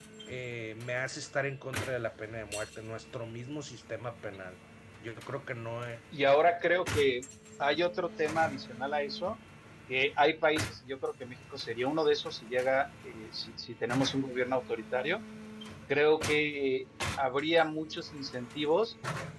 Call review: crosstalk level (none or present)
none